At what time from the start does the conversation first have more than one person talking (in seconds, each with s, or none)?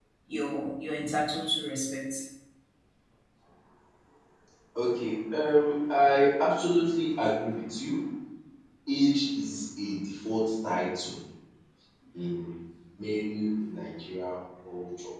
none